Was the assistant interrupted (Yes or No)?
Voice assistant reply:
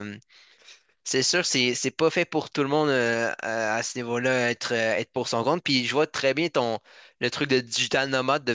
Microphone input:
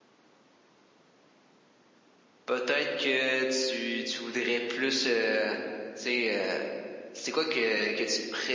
Yes